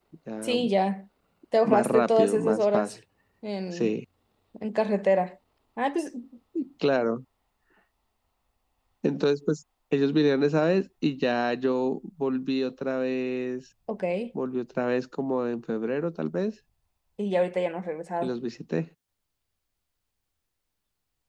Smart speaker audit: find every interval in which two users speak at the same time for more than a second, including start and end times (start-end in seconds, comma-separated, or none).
1.6-2.9